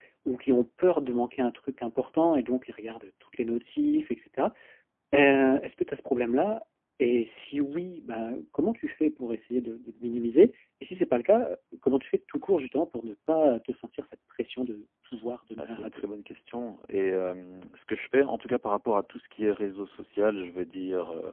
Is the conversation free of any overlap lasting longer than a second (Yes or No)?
Yes